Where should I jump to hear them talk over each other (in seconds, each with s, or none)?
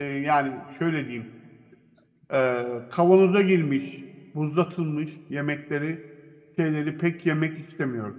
none